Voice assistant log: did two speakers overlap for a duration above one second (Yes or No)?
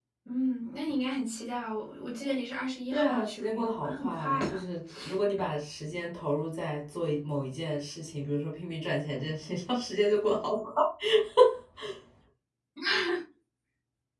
Yes